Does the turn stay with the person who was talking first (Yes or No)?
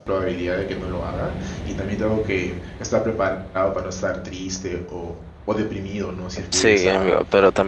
No